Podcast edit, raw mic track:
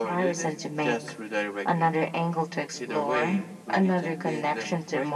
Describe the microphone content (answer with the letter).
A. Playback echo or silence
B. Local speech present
A